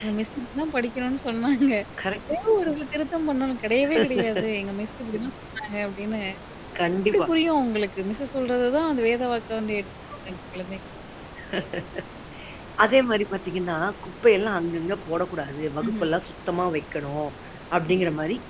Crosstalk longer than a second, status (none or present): none